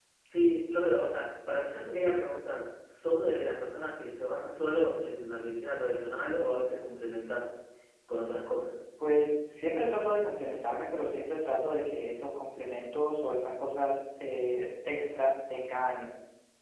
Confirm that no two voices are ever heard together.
Yes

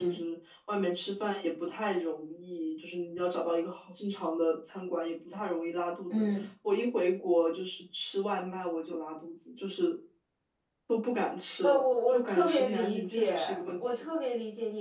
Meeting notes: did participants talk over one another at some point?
Yes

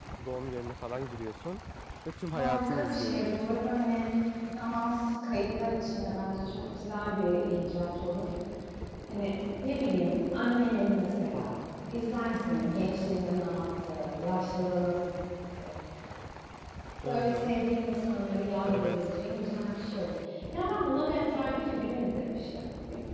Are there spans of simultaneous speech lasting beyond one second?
Yes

